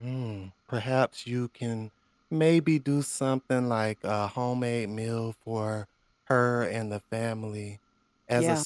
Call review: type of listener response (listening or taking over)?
listening